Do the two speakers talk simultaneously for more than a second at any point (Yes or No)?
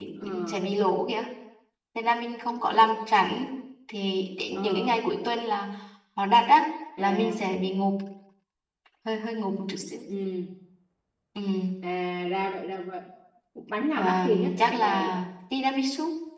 Yes